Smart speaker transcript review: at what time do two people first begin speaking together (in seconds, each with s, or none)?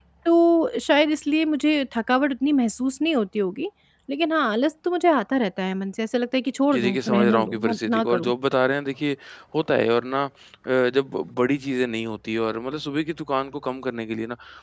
6.7 s